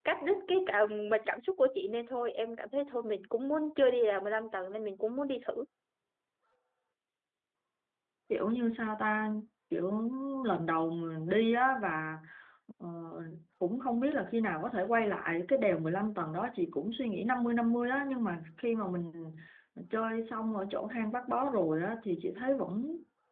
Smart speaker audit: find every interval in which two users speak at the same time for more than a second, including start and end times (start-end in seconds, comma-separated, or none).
none